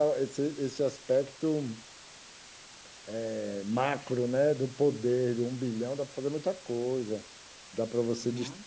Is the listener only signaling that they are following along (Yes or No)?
Yes